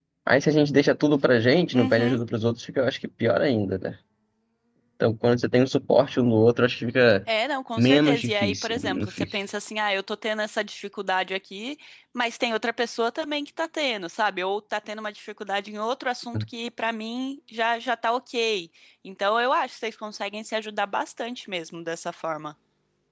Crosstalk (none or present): present